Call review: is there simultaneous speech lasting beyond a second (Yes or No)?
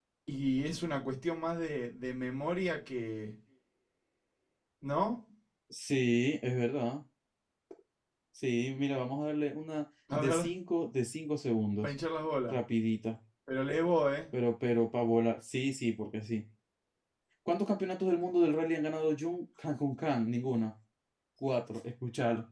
No